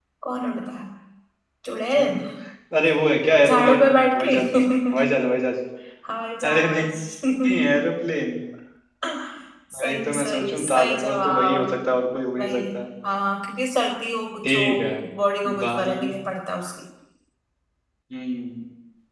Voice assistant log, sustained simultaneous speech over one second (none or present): present